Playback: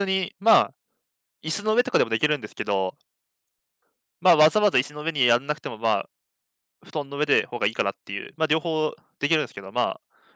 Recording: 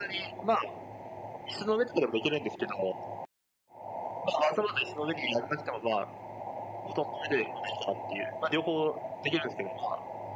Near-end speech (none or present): none